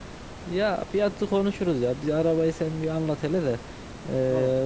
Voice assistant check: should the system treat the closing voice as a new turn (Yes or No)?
No